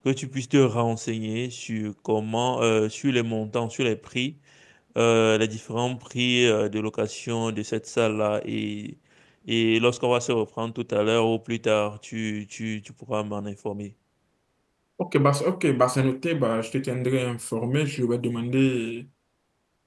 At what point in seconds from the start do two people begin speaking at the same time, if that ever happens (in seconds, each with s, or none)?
none